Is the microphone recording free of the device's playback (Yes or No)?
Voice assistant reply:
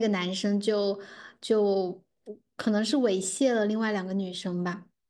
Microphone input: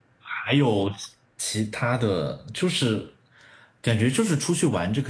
Yes